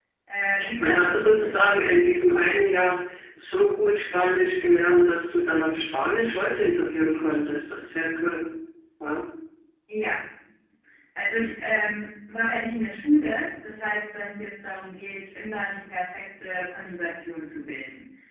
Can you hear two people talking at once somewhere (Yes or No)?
Yes